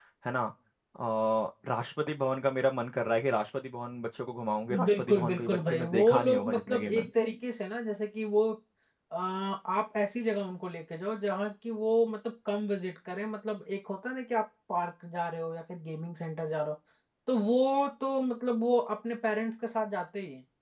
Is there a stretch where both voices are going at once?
Yes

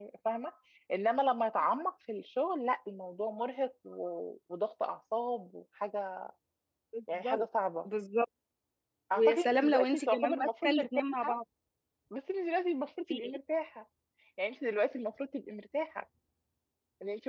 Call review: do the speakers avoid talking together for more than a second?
No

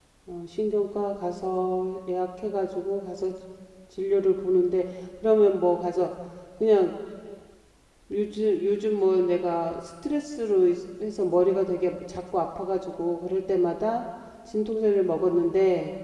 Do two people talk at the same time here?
No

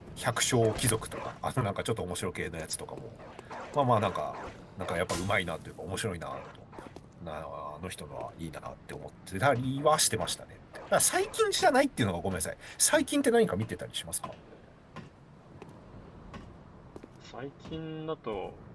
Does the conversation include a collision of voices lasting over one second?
No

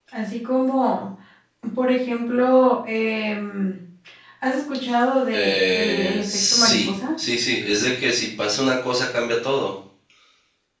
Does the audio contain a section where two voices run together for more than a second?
Yes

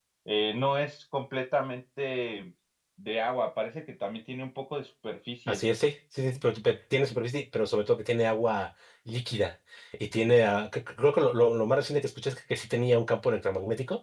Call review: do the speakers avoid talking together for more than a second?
Yes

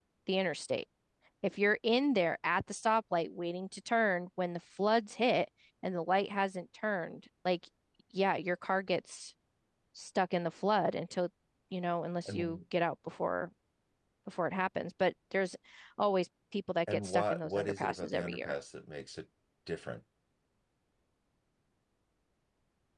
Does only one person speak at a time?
No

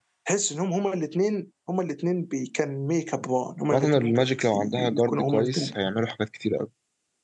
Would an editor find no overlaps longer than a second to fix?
No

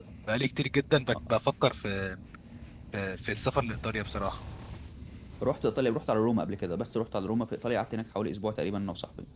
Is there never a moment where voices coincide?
Yes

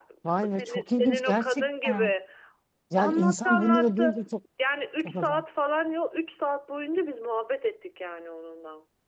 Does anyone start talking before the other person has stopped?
Yes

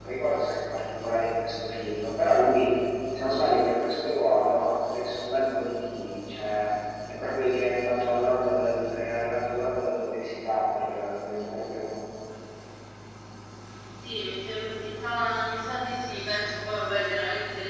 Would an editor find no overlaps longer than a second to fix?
Yes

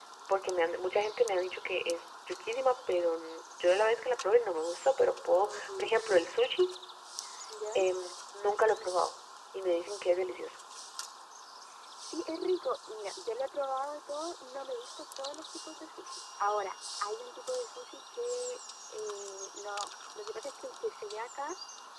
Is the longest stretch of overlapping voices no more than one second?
Yes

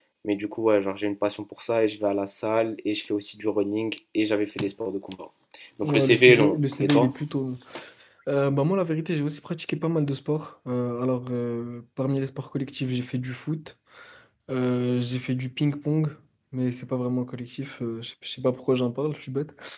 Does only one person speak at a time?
No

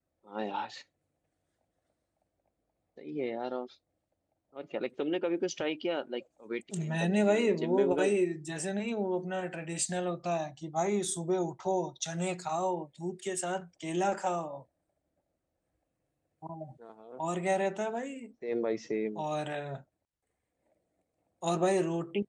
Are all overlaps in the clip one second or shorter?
No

